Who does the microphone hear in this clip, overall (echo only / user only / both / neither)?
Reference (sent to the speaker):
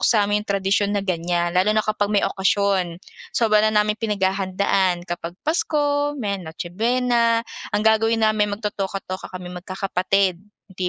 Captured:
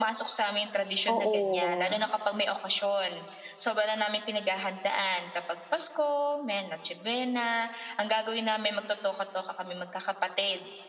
both